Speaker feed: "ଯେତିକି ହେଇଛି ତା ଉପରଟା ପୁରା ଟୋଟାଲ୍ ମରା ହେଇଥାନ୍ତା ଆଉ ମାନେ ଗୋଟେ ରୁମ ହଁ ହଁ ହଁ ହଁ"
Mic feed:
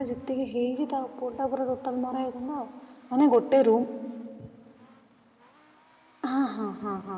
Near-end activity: none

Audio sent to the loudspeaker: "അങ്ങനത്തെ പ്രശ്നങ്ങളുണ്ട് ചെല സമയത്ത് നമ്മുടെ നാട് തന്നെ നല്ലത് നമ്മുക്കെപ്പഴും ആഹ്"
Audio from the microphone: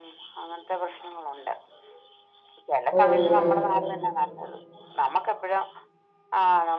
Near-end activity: present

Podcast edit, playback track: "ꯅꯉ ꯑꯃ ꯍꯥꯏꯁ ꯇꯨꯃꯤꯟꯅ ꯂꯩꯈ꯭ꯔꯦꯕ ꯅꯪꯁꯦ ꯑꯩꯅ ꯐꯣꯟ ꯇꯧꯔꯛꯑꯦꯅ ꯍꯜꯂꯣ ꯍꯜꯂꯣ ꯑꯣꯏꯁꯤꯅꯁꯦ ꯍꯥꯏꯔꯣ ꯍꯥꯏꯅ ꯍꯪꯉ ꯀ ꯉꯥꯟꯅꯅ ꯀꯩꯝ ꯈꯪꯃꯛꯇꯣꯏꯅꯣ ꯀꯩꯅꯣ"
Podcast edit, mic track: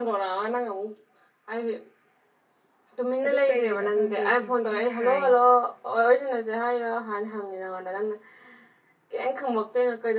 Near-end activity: present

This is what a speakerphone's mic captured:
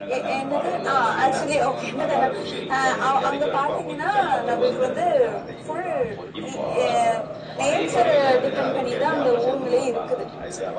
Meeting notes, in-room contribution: present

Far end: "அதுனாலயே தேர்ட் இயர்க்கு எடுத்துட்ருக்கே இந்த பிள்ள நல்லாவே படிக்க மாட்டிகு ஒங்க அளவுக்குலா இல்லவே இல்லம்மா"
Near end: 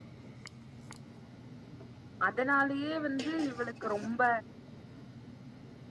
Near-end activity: present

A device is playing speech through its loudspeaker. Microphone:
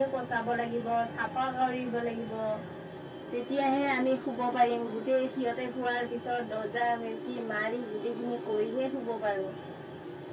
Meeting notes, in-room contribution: none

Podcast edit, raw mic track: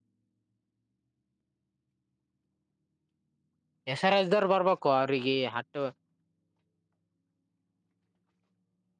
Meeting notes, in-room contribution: present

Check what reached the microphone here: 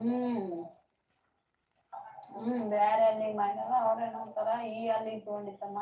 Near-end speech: none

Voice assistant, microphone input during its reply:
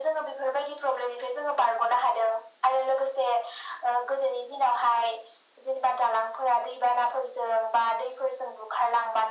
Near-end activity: none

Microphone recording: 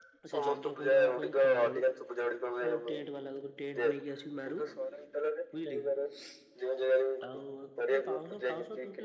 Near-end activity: present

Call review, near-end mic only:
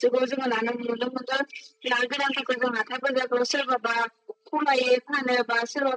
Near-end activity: none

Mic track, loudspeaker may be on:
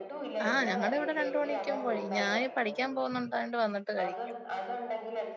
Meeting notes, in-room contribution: present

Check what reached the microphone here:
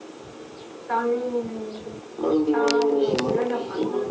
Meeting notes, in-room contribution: none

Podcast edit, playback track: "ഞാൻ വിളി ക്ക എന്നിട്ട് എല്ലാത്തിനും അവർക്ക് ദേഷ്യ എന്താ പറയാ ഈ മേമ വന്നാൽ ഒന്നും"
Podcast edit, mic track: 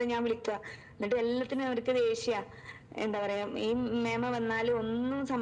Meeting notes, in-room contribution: none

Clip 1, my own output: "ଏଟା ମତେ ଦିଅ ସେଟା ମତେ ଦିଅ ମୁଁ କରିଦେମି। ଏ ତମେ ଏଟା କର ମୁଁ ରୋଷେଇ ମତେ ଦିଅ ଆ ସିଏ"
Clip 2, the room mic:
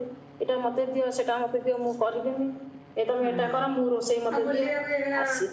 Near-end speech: present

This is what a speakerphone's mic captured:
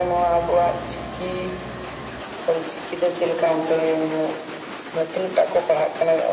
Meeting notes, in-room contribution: none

